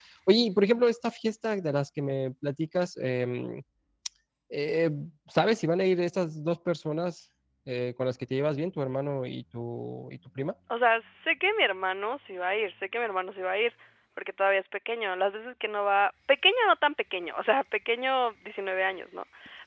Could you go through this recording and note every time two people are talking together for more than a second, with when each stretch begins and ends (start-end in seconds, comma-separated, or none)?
none